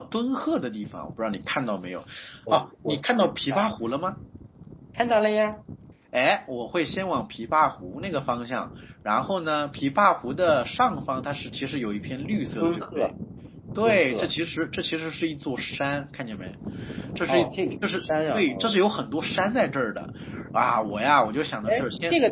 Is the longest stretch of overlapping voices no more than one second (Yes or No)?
No